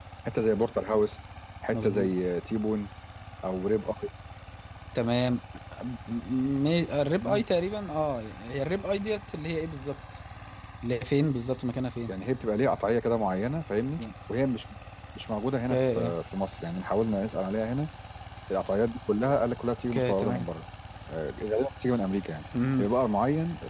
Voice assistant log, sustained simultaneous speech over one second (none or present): none